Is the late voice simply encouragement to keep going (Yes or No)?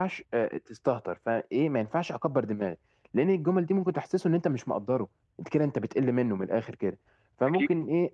Yes